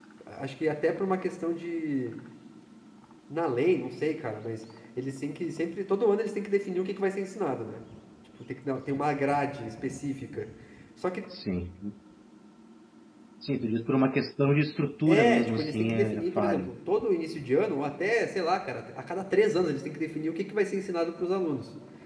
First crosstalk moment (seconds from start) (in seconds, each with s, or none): 15.1 s